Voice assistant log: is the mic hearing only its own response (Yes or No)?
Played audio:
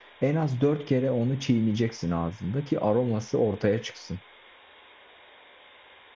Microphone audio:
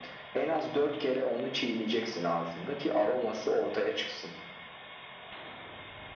Yes